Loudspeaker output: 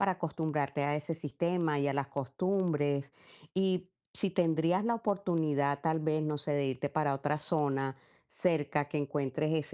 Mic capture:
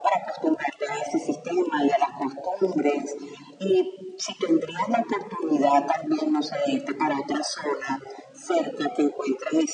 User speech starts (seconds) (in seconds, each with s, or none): none